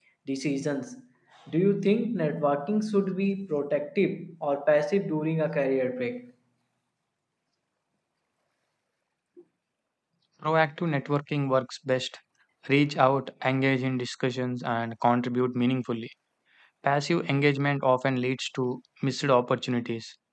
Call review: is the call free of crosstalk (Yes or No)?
Yes